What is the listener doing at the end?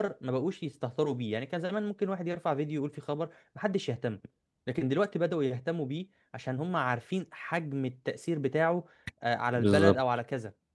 taking over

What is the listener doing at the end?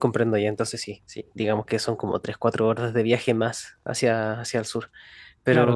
taking over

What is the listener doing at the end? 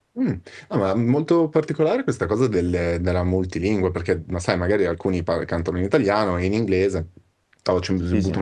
listening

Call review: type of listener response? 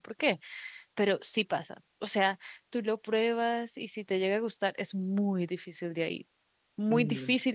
listening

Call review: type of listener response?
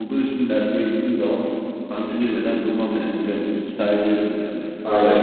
taking over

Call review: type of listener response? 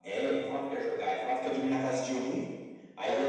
listening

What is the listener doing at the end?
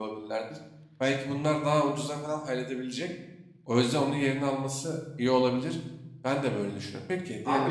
taking over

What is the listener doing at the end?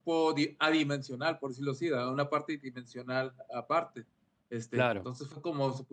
listening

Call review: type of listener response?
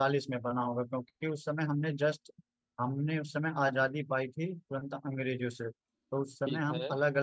listening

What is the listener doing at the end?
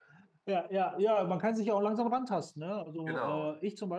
listening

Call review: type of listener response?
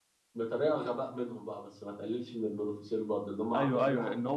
taking over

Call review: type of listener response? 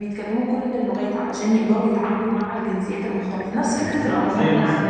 taking over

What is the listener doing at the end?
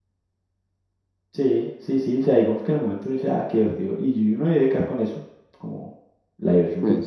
listening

